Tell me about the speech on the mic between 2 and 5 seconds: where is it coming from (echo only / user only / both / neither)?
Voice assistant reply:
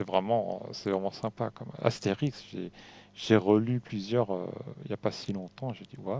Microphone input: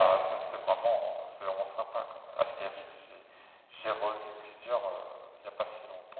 echo only